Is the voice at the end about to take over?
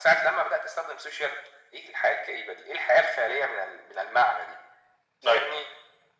No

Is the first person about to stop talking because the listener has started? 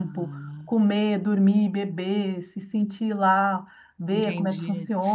Yes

